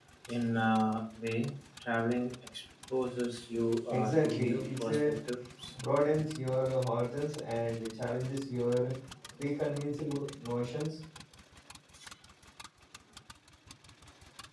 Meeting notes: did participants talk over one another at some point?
Yes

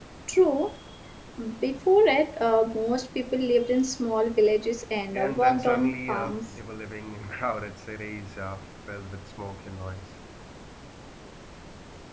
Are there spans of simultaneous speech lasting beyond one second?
Yes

